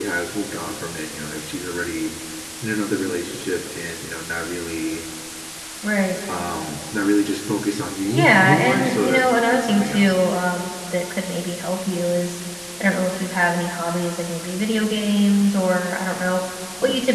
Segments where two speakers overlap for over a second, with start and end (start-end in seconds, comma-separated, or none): 8.1-10.1